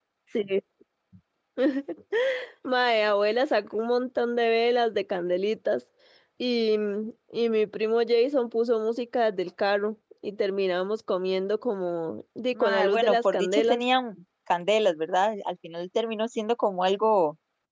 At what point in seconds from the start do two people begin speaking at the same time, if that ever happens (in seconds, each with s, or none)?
12.6 s